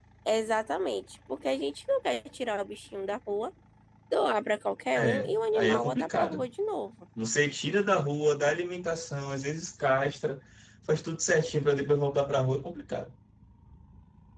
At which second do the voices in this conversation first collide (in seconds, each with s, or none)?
5.0 s